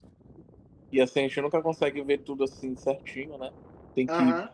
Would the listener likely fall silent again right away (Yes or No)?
Yes